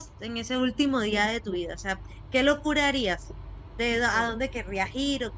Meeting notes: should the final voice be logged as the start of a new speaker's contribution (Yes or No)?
No